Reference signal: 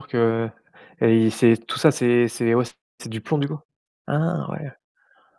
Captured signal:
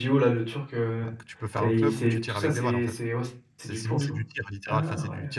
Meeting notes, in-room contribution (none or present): present